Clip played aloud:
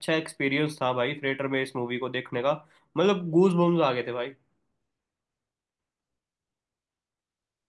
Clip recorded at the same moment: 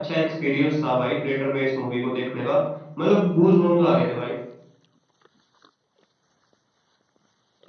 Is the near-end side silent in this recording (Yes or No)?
Yes